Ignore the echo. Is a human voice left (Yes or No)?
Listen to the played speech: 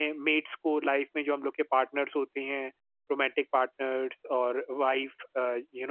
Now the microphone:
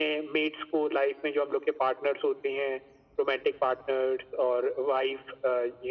No